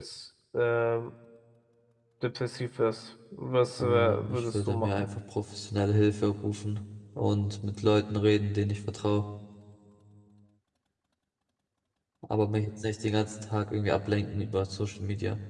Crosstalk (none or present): present